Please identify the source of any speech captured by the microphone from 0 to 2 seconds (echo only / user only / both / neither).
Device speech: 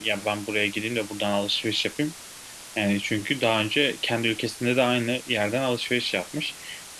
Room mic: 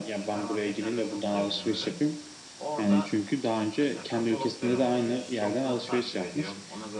both